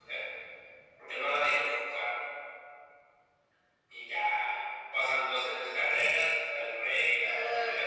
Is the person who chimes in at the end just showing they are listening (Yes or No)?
No